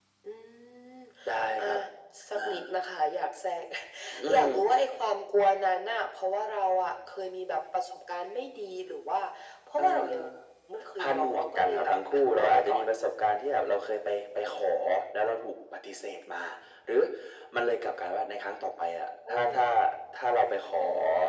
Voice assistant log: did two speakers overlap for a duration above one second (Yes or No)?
Yes